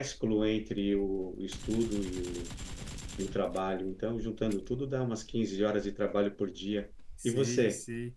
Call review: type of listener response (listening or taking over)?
taking over